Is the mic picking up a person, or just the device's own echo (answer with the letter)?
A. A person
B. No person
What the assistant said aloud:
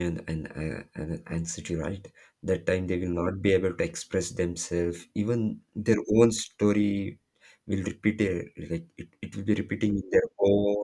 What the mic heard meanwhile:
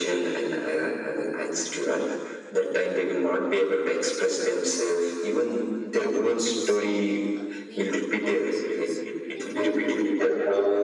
A